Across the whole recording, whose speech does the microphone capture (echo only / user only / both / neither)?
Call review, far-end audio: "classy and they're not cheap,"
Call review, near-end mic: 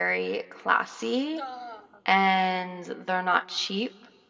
both